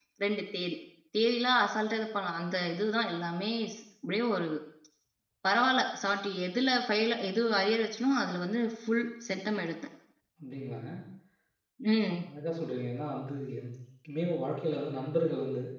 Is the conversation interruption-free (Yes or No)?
Yes